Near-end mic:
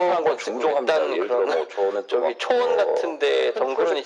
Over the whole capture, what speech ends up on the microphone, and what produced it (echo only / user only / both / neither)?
echo only